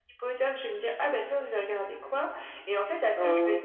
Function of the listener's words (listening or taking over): listening